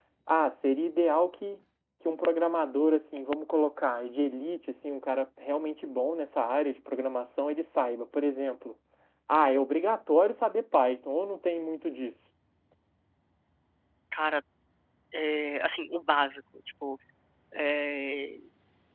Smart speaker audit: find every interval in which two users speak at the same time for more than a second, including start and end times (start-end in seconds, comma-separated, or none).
none